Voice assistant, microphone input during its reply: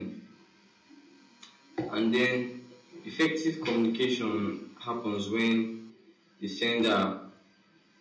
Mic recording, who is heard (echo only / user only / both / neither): echo only